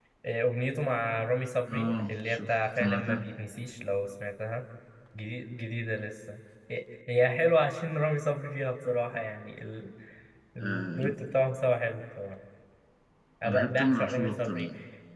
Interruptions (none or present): present